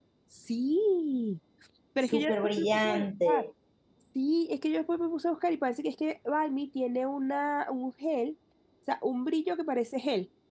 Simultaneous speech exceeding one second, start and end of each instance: 2.0-3.5

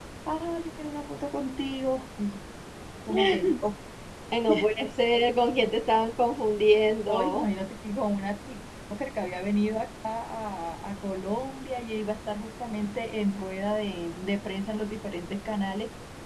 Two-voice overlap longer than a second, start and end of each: none

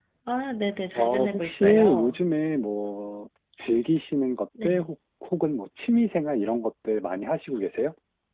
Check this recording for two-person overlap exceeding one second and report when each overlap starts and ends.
1.0-2.2

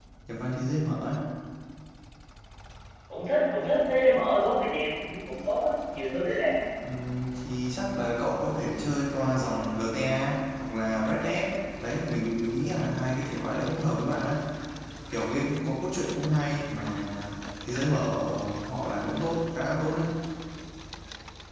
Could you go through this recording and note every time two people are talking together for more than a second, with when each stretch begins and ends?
none

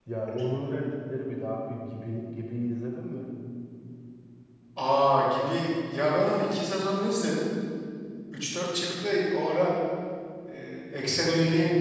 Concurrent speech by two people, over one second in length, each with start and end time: none

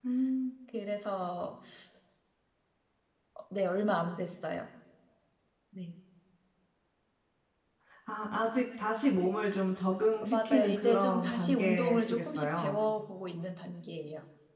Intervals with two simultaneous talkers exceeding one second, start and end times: 10.2-12.8

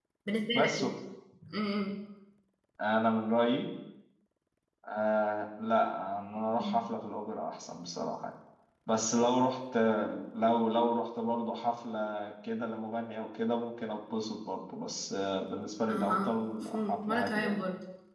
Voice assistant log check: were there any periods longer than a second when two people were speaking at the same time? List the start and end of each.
15.9-17.6

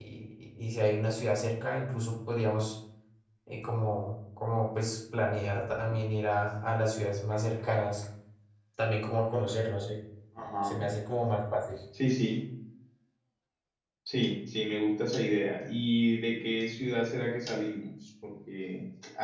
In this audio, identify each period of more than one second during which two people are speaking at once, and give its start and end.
none

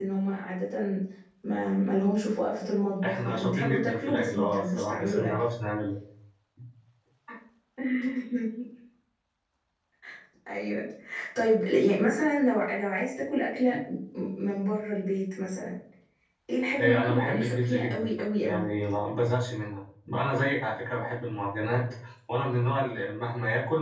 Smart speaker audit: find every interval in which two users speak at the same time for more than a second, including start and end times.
3.0-5.5, 16.8-18.1

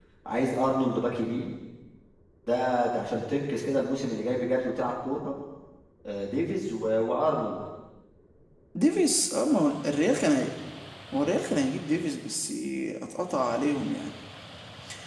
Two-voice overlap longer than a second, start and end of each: none

